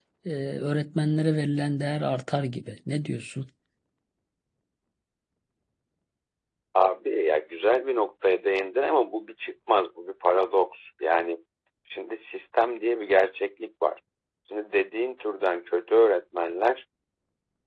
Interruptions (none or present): none